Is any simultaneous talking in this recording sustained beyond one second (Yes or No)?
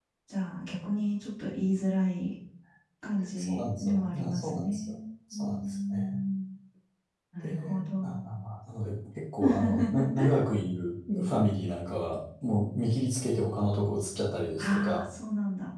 Yes